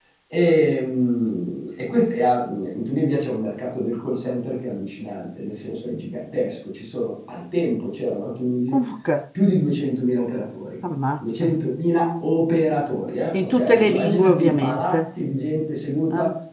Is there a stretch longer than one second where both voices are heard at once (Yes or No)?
Yes